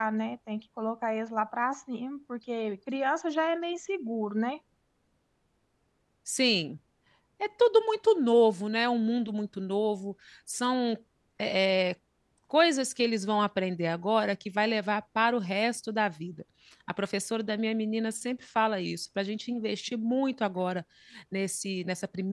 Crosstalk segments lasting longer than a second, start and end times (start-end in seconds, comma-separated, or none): none